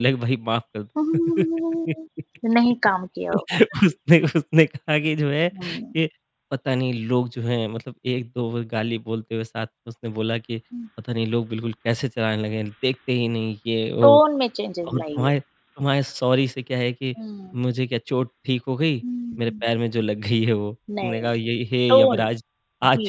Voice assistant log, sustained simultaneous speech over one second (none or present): none